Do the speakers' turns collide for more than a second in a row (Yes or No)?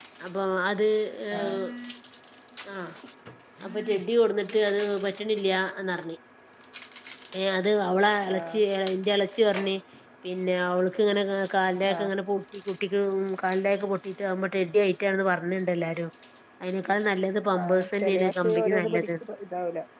Yes